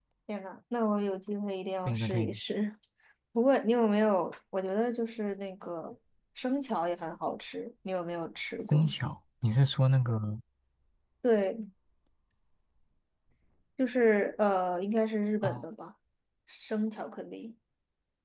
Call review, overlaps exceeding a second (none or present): none